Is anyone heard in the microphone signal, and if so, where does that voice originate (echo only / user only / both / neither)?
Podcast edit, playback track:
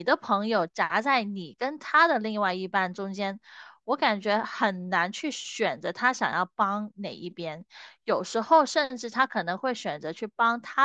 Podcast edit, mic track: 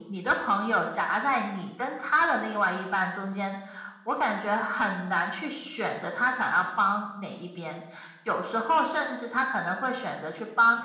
echo only